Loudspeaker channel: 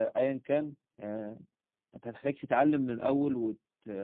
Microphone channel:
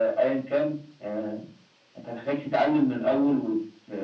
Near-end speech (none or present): none